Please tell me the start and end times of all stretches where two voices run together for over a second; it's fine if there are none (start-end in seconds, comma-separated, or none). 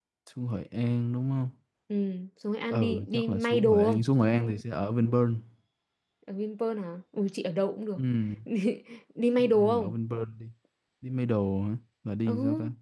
2.7-4.0